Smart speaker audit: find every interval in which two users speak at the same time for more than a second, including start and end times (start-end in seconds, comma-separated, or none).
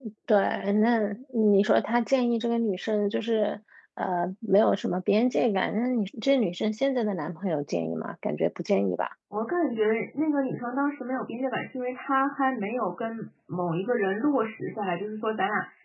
none